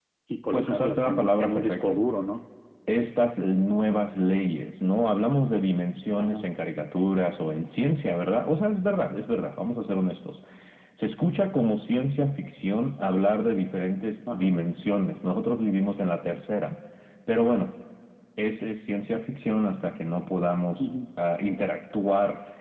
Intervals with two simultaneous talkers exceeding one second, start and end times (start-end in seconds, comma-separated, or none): 0.5-2.0